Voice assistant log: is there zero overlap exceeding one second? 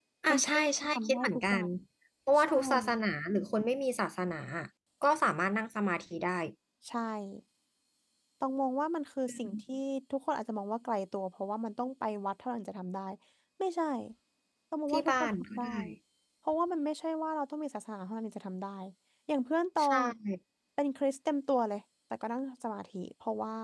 No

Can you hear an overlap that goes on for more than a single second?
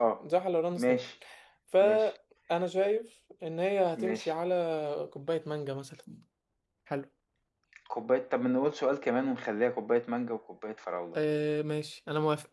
No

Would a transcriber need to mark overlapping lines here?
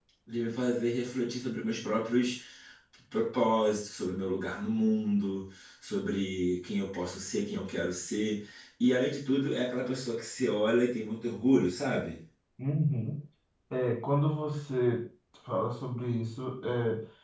No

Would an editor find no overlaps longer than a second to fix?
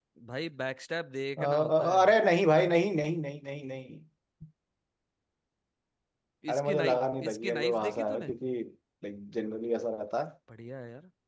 No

